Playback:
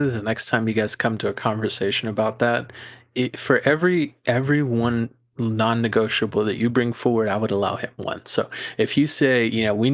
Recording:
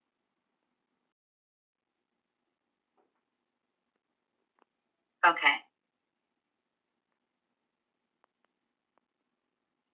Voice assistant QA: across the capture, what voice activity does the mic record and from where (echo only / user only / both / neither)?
user only